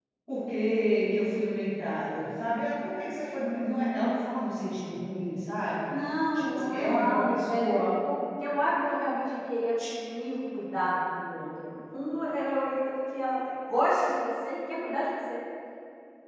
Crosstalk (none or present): present